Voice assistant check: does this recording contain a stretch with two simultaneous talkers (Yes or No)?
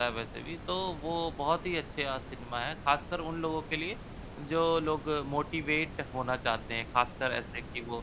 No